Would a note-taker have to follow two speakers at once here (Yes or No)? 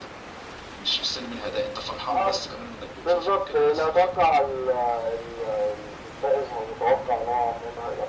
Yes